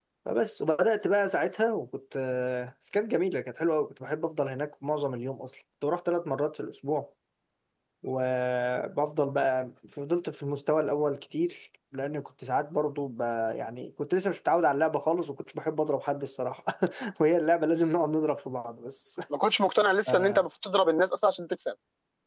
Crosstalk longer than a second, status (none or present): none